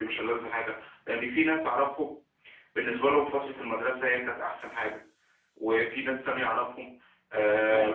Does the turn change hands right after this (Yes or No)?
No